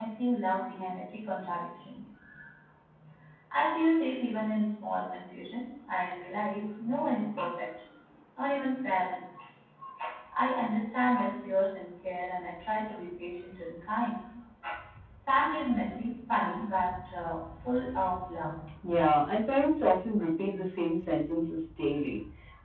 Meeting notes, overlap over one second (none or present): none